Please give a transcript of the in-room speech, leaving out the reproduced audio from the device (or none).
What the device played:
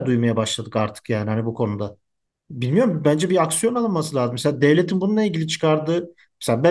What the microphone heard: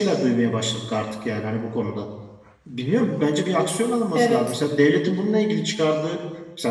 Evet.